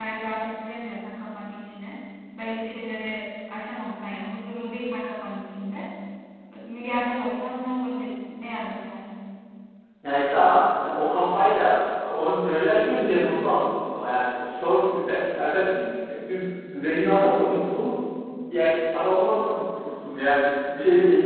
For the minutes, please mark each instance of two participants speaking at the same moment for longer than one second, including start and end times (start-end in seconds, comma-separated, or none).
none